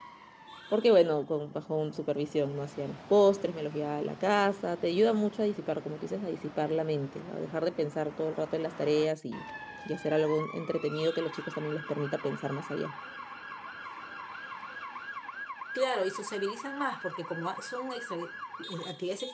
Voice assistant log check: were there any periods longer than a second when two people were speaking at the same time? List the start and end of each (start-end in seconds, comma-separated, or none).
none